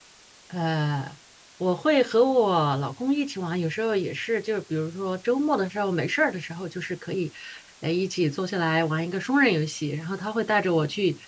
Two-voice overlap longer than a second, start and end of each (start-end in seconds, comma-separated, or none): none